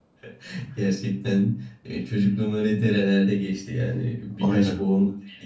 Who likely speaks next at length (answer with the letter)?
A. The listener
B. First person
B